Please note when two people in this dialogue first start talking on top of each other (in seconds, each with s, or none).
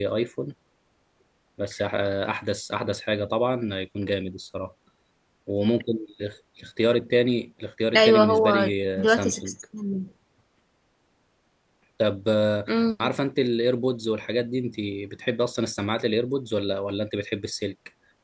7.9 s